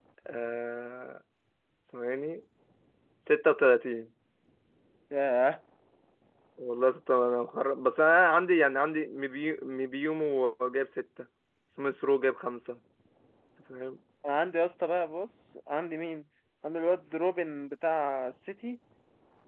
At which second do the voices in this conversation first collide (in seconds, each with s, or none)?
none